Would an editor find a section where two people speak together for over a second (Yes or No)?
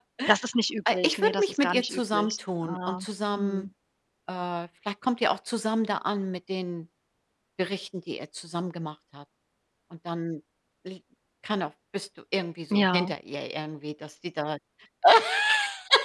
Yes